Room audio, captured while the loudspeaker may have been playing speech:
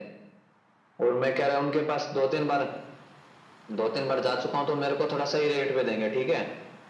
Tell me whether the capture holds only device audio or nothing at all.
Yes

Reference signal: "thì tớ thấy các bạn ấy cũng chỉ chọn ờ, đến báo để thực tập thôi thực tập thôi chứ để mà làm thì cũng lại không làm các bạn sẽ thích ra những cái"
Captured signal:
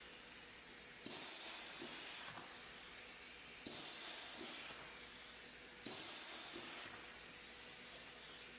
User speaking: No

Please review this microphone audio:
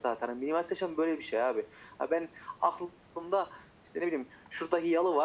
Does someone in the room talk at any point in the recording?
No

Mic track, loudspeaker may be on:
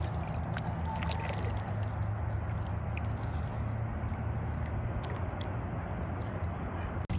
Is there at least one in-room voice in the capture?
No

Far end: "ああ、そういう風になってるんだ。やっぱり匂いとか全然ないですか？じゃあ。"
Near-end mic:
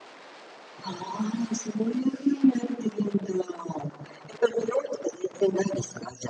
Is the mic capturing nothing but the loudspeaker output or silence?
Yes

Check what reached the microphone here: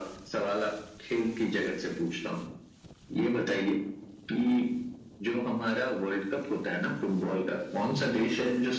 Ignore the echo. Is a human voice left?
No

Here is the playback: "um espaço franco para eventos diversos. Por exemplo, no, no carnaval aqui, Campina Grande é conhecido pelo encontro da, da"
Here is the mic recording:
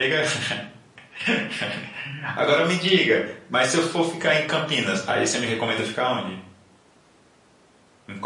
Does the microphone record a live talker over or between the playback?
Yes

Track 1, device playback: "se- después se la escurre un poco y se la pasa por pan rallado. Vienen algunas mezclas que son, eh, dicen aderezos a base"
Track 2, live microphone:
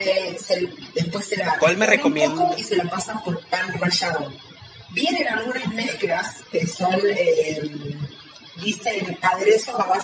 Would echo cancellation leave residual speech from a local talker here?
Yes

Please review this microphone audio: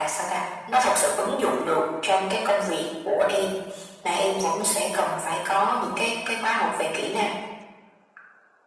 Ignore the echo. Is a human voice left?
No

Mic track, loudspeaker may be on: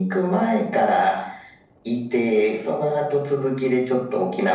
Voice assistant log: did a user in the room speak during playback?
No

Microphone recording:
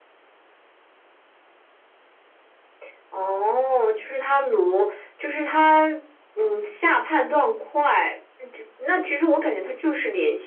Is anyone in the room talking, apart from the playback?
No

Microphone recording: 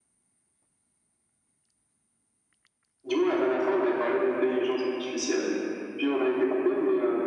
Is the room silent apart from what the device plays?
Yes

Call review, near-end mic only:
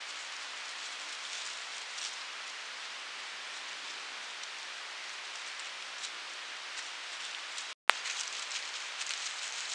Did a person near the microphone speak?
No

